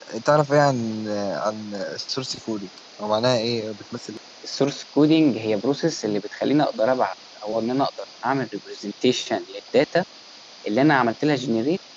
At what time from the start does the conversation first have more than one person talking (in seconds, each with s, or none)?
none